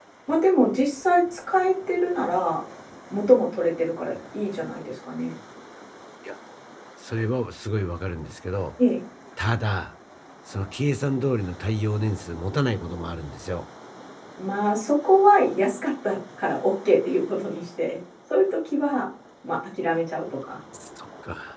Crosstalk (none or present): none